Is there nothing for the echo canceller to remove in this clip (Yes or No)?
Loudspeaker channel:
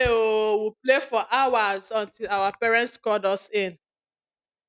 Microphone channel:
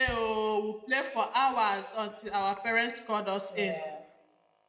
No